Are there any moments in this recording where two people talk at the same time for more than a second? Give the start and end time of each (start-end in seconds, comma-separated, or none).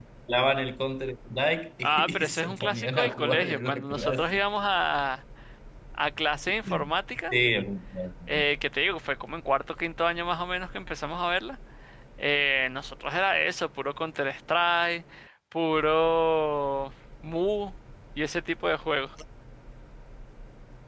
1.8-4.4